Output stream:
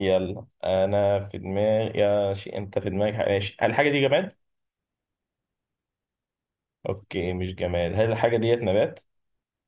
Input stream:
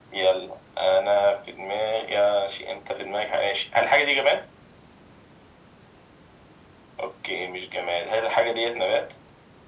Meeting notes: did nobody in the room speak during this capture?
Yes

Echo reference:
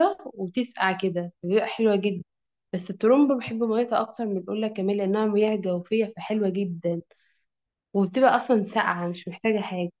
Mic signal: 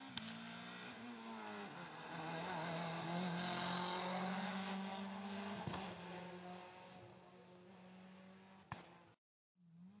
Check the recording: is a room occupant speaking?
No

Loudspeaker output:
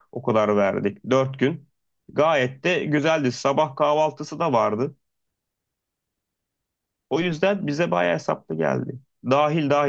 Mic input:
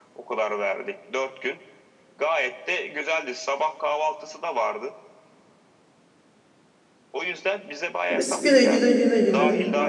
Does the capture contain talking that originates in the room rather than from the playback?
Yes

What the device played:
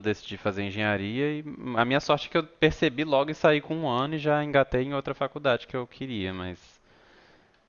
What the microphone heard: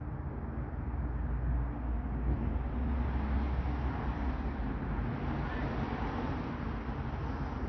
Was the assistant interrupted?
No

